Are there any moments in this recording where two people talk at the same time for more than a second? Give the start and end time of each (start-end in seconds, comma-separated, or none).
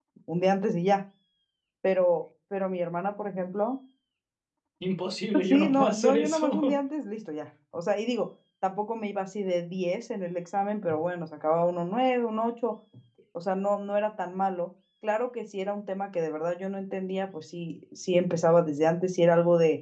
5.4-6.7